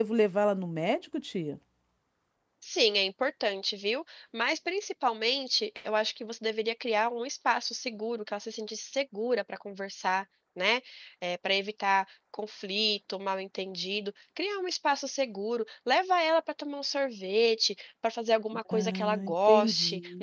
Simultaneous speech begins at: 18.7 s

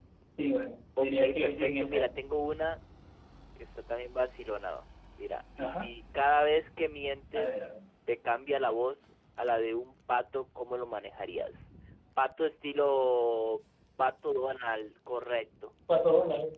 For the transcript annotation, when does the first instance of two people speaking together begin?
1.0 s

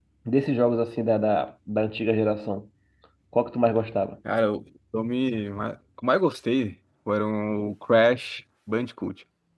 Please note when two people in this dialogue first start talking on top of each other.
none

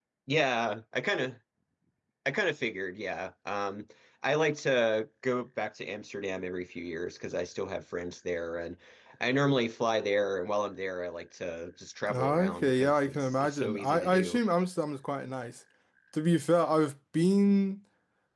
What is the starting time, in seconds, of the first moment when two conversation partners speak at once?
12.1 s

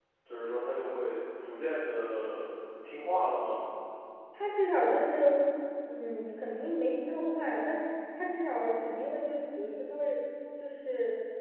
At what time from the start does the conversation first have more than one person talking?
none

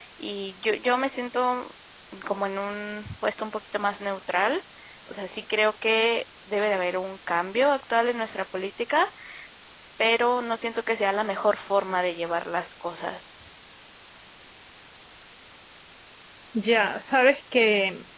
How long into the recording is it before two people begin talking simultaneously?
none

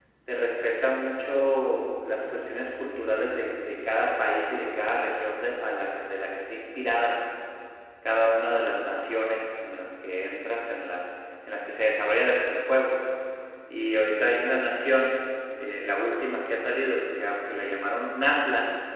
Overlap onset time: none

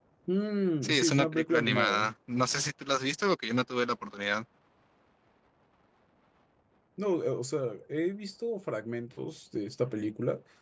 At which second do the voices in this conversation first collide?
0.8 s

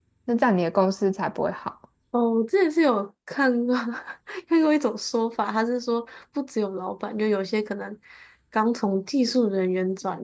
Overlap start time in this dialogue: none

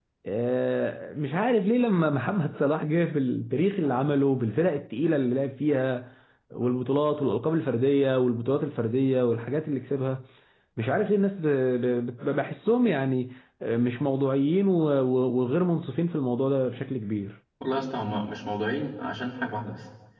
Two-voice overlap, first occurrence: none

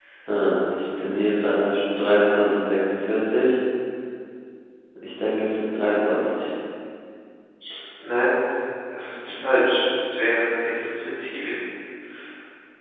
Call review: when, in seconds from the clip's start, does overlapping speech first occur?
none

